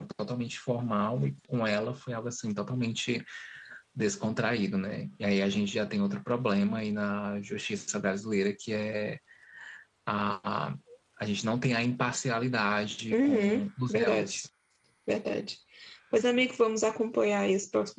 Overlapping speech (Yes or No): Yes